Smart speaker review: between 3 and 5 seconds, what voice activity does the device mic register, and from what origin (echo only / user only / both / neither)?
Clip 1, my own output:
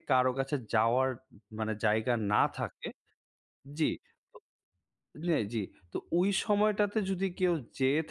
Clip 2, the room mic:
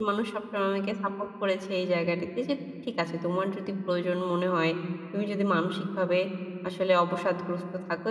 user only